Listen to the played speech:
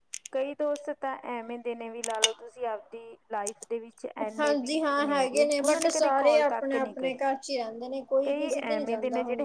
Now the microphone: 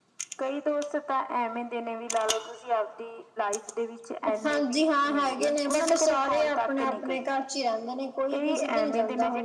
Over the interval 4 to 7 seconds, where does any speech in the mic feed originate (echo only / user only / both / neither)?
echo only